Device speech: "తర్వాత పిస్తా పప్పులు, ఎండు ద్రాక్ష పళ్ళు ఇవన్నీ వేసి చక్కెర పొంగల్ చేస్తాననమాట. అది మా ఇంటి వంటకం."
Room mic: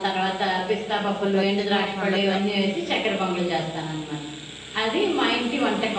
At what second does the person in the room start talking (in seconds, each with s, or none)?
1.1 s